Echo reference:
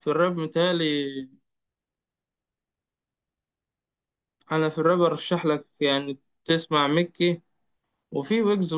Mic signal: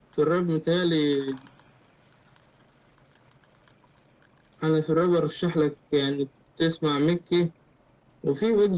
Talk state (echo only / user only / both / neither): echo only